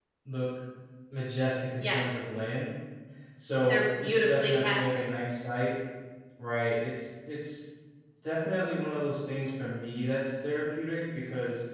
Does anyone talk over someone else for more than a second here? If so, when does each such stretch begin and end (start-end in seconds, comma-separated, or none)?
3.6-5.0